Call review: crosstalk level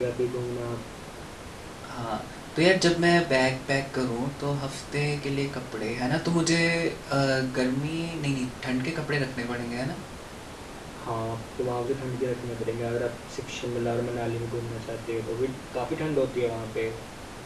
none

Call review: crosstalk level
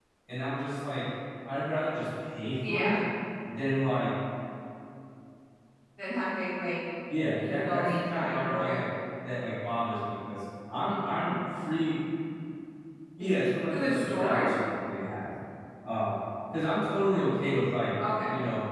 present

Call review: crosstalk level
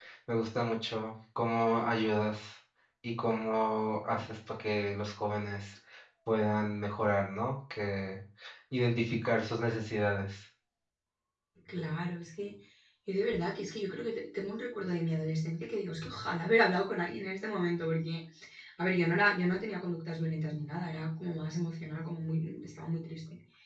none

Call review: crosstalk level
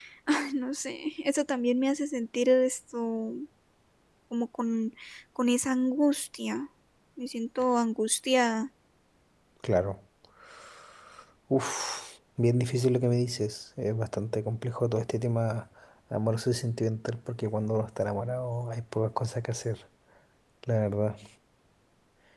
none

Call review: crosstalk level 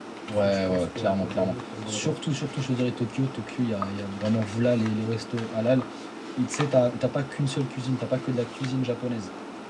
present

